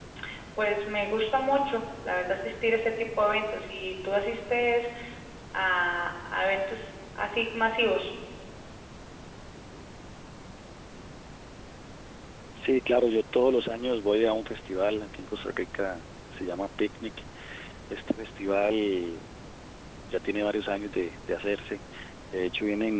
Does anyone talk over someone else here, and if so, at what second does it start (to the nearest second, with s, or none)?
none